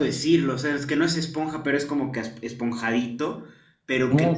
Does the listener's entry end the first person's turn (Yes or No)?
No